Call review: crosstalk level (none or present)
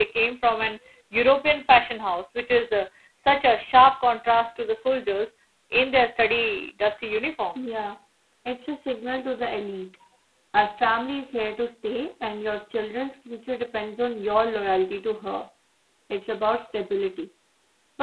none